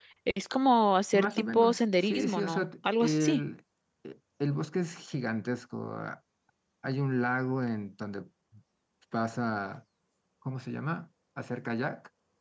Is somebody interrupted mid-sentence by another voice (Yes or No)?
Yes